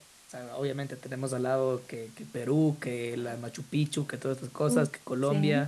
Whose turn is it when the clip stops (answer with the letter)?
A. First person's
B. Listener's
A